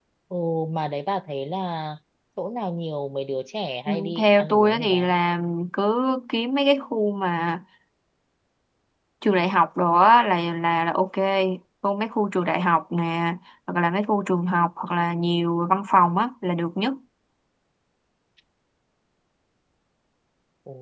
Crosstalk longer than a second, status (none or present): present